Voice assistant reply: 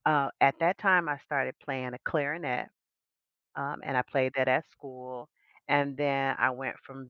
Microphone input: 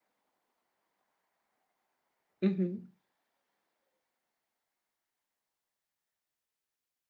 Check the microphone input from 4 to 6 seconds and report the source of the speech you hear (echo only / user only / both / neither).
neither